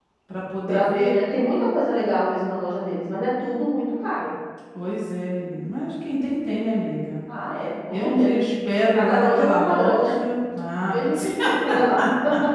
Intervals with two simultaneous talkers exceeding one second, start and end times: 8.9-10.2

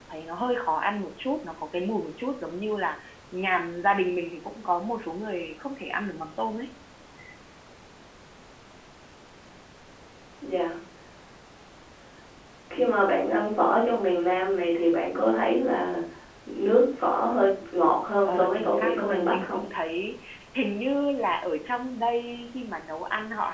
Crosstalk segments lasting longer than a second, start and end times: 18.3-19.6

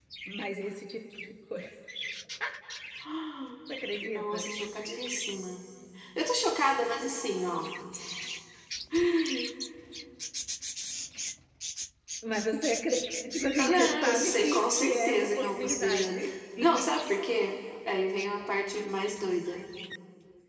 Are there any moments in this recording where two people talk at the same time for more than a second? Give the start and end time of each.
13.6-16.3

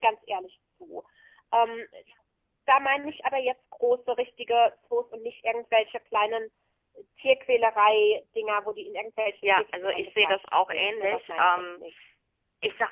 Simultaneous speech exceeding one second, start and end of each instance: 9.5-11.8

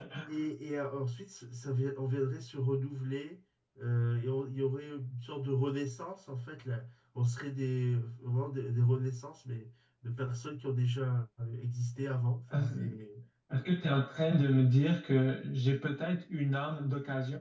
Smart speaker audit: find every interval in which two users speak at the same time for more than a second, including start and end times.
none

